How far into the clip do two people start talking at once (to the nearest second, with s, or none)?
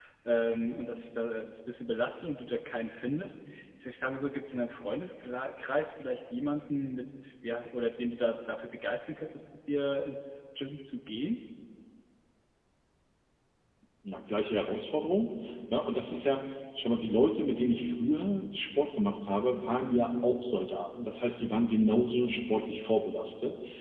none